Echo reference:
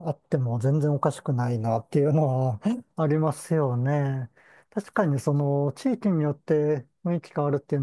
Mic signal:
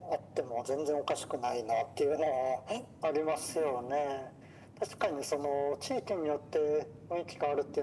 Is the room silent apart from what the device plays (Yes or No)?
Yes